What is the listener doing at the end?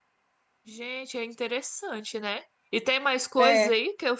listening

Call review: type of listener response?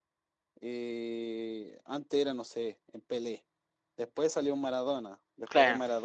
listening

